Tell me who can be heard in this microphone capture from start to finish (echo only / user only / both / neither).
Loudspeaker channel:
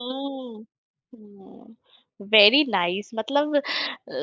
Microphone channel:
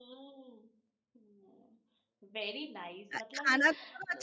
both